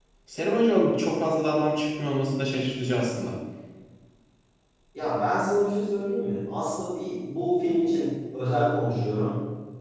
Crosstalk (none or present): none